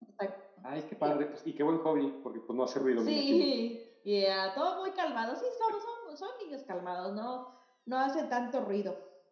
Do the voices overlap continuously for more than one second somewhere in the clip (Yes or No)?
No